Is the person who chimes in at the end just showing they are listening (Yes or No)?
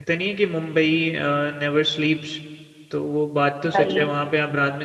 Yes